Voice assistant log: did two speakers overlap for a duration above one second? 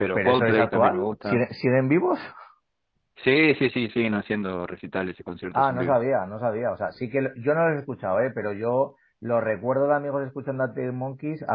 Yes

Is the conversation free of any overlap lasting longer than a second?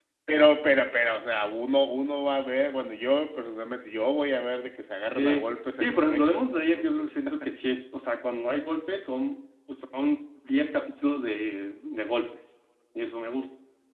No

